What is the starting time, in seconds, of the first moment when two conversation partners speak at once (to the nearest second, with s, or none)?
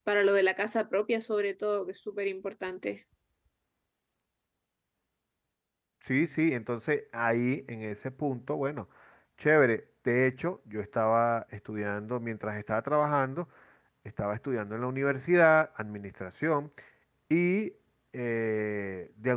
none